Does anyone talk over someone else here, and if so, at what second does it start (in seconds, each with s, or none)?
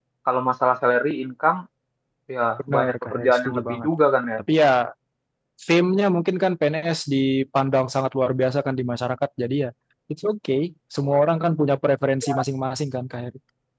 2.7 s